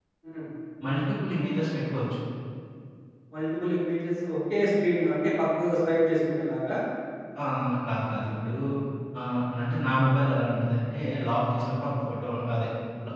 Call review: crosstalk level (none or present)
none